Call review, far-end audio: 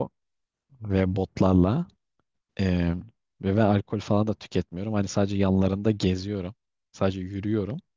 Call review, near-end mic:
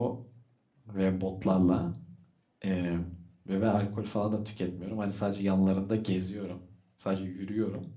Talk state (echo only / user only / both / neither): echo only